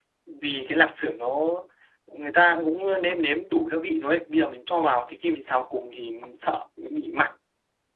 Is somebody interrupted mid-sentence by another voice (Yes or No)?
No